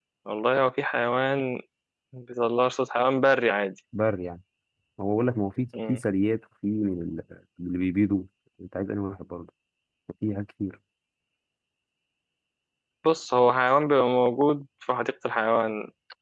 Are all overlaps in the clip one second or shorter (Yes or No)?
Yes